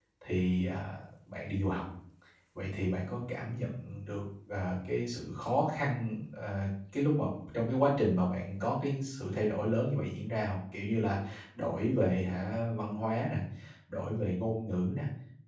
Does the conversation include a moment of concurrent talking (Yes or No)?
No